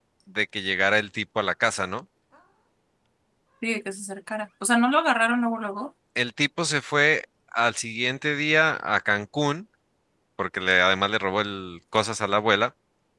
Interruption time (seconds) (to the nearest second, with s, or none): none